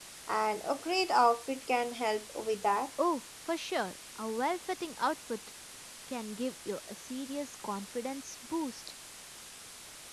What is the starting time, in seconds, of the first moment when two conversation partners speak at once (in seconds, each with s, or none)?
none